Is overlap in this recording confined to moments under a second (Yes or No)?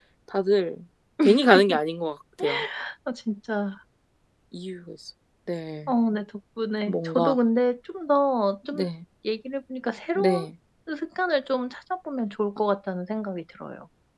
Yes